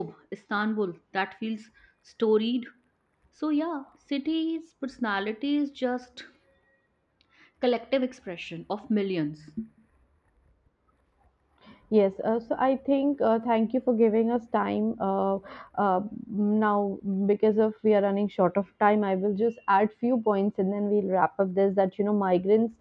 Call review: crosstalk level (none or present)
none